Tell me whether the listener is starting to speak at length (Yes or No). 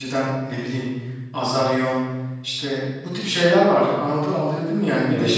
No